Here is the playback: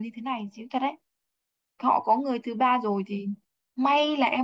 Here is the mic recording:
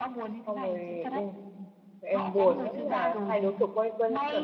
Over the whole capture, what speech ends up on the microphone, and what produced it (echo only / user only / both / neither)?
both